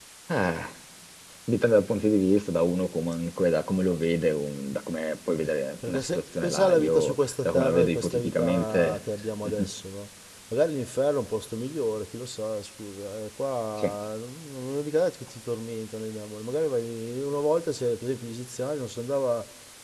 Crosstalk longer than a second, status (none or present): present